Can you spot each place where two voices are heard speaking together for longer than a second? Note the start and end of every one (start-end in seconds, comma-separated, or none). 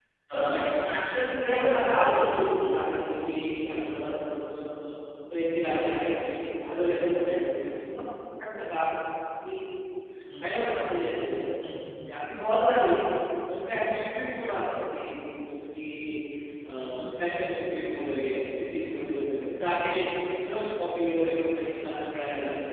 1.5-2.8